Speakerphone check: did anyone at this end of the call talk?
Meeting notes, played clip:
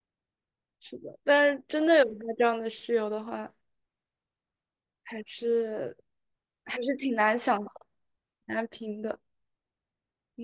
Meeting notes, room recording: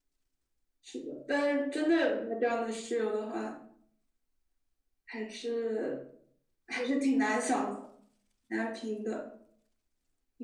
No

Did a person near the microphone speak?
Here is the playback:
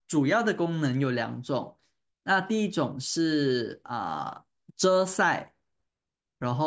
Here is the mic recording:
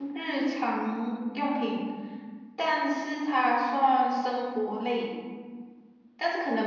Yes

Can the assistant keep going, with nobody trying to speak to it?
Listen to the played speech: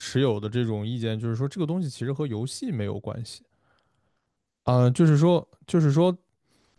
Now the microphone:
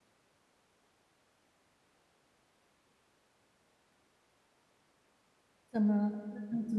No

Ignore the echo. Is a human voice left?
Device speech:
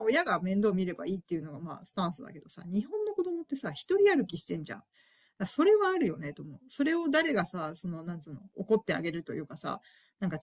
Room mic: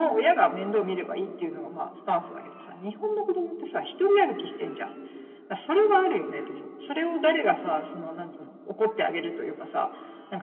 No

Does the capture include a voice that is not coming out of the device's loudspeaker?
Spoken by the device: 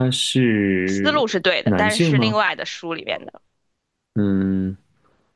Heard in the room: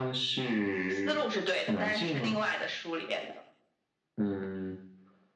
No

